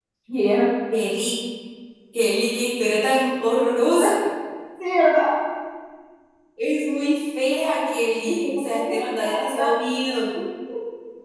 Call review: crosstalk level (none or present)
present